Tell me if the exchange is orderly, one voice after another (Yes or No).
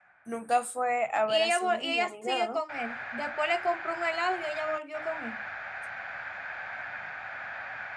No